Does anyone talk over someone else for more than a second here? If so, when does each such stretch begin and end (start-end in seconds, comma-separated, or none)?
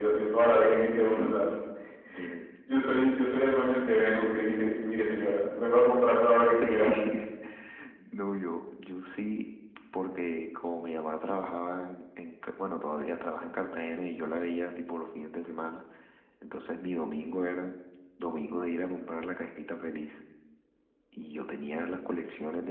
none